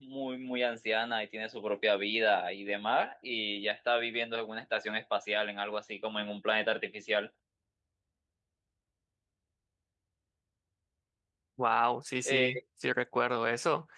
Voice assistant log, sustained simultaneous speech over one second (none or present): none